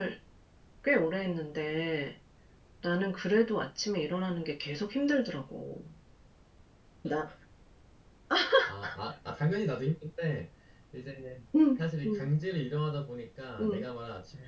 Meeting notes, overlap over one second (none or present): none